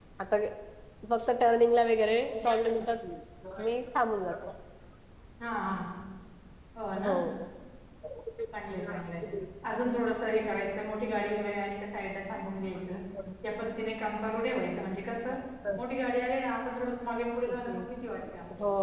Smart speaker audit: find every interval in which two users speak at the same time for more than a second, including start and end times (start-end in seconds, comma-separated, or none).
none